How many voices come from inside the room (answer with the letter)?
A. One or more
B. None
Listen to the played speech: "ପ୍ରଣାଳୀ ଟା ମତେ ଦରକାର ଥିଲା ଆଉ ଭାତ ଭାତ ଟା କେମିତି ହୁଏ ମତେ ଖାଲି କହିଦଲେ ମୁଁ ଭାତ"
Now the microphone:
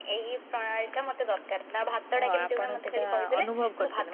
A